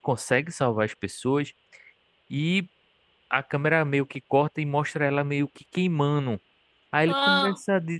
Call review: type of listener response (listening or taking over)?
listening